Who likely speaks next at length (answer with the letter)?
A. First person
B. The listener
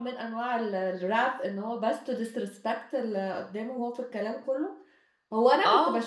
A